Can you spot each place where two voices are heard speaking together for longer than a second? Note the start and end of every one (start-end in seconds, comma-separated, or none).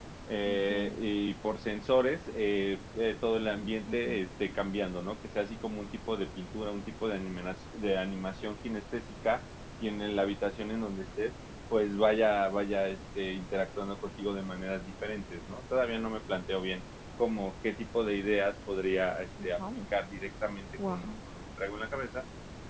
none